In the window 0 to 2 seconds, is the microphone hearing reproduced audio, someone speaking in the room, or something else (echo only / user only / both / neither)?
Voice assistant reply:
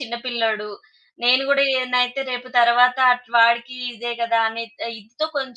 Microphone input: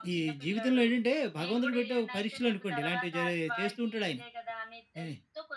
both